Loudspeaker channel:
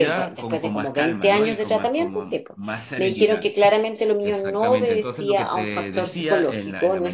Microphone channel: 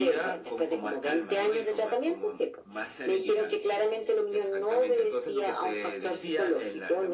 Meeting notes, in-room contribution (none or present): none